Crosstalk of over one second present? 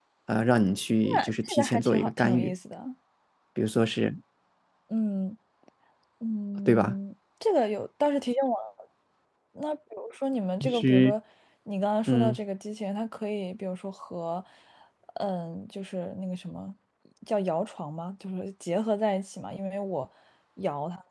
Yes, from 1.0 s

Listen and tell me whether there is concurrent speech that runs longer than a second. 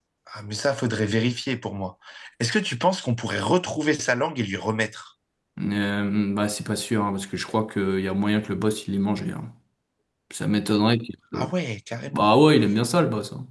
No

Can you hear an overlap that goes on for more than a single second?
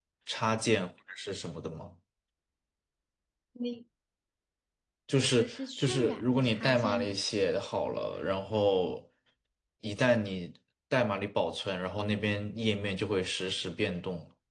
Yes, from 5.2 s

